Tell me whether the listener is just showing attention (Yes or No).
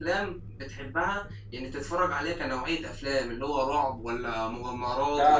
No